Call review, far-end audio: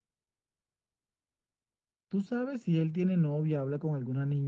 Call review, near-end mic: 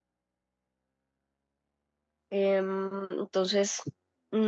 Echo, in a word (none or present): none